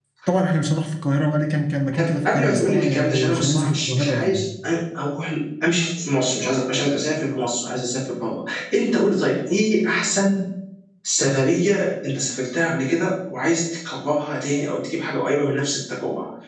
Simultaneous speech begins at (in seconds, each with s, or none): 1.9 s